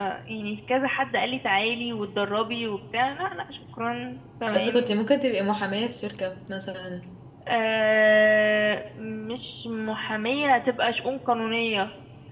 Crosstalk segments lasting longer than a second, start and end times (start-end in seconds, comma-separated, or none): none